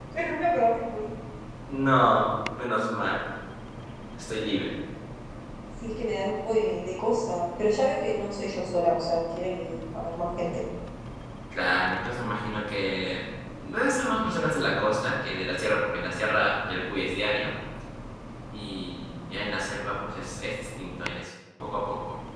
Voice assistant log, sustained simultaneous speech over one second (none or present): none